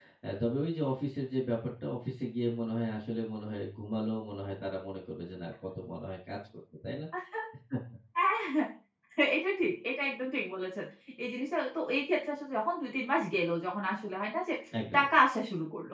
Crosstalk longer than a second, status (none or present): none